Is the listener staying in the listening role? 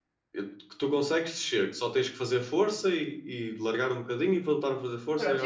No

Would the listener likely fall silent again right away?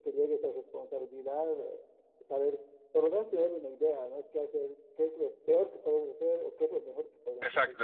No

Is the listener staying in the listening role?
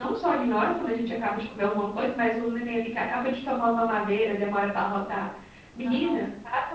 Yes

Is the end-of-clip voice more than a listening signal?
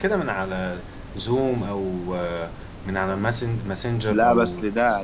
Yes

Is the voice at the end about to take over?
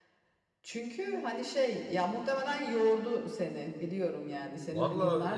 Yes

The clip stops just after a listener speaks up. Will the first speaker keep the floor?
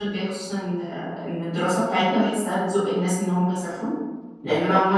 Yes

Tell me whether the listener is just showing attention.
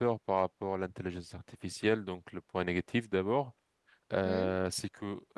Yes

